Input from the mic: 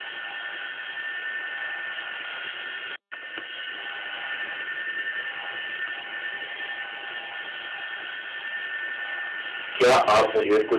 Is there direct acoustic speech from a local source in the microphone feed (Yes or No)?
Yes